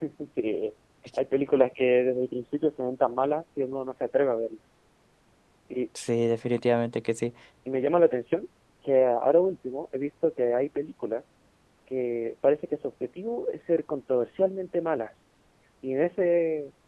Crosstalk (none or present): none